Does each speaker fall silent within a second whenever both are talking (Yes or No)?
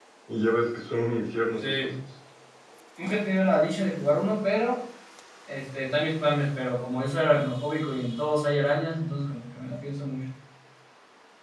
Yes